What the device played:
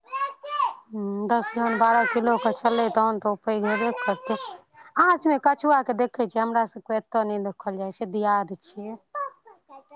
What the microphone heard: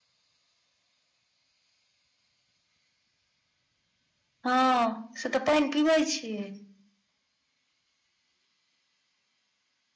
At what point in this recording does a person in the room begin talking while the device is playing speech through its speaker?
4.4 s

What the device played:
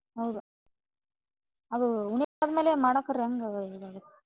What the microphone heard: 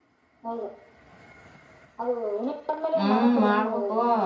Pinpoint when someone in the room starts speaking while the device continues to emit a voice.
3.0 s

